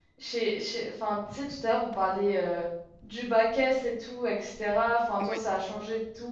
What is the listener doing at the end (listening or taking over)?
listening